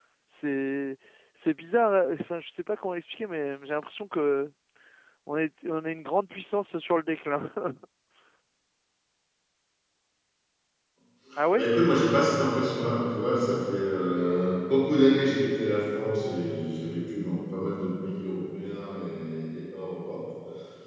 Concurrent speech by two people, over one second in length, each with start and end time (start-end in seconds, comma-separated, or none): none